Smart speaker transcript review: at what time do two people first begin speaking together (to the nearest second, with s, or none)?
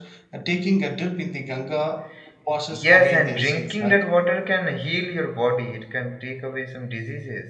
3 s